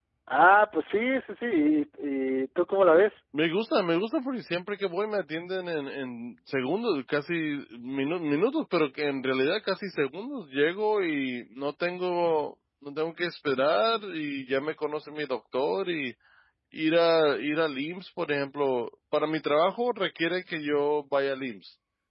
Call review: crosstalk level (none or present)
none